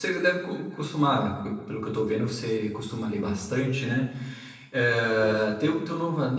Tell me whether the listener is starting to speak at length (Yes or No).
No